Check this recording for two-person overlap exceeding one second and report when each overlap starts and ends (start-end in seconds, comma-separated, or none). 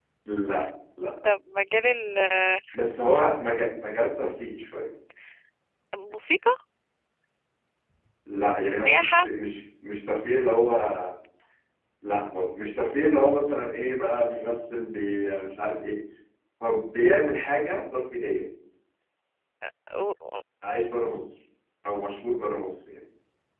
none